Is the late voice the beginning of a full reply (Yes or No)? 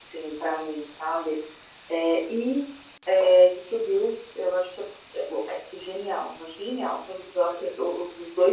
No